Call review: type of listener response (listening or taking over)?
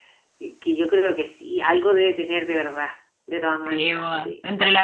taking over